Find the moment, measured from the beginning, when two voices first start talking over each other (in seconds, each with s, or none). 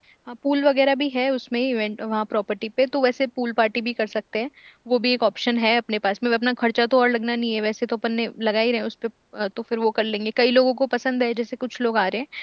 none